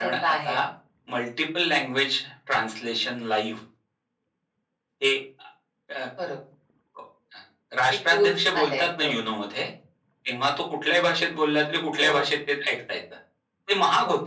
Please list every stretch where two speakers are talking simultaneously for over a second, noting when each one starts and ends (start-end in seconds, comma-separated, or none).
7.9-9.1